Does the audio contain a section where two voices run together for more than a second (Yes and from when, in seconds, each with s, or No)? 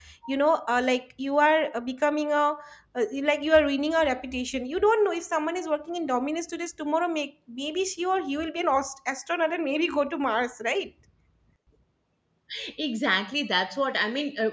No